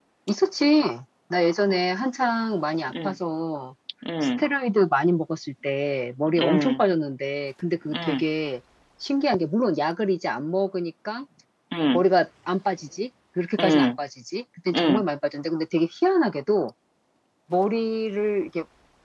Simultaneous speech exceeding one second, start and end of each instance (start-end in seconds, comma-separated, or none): none